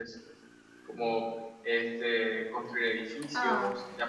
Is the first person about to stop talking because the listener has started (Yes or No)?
No